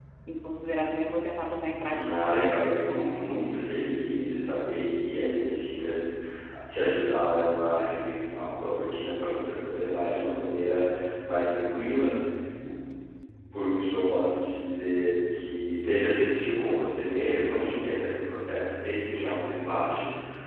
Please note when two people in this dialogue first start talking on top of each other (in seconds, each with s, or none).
1.9 s